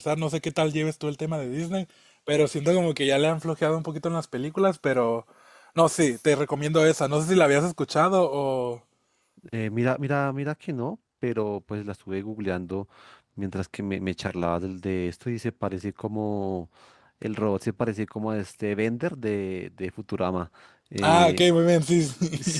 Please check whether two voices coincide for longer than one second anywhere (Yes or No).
No